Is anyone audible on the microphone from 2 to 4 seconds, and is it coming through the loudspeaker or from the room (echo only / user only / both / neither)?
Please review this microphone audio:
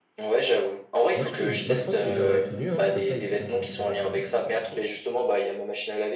both